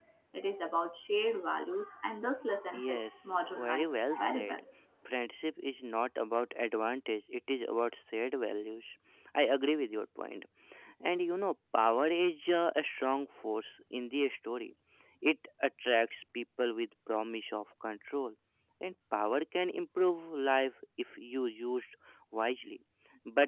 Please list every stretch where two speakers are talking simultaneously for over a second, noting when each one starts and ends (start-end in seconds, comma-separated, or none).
2.9-4.6